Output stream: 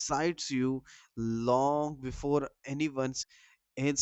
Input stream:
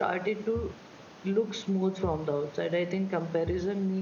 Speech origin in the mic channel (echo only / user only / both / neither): user only